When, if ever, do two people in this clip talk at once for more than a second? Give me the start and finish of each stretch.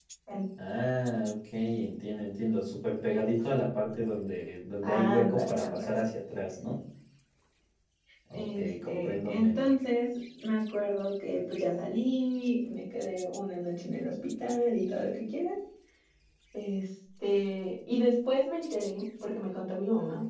4.8-6.0, 8.3-9.7

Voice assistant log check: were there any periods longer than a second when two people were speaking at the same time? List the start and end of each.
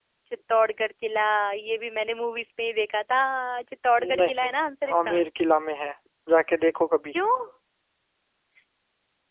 none

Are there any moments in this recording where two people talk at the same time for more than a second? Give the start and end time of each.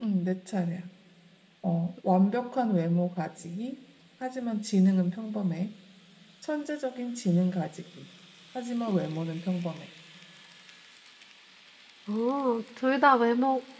none

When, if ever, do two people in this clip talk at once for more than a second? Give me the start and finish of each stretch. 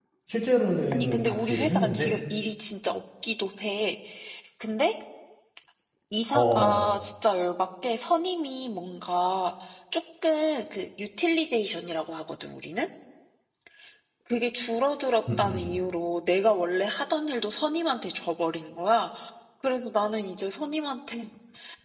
0.9-2.1

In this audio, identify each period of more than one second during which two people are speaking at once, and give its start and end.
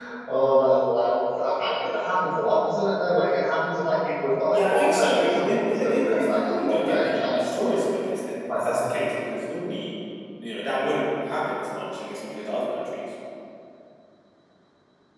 4.5-7.4

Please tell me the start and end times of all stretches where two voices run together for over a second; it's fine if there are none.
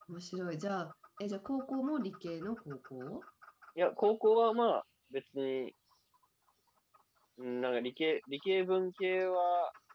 none

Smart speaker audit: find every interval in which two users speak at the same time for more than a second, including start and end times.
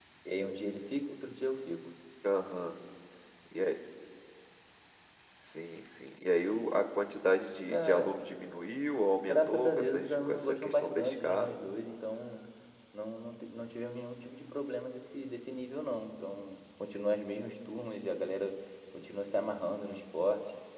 9.2-11.6

